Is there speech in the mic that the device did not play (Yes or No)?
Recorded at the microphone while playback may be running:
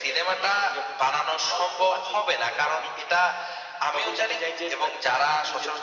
No